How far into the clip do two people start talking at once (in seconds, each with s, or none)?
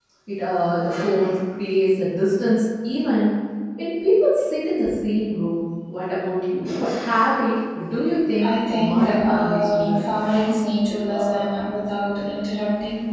8.4 s